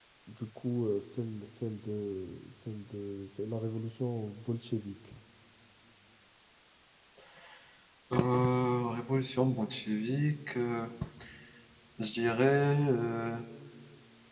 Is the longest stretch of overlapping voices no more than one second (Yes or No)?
Yes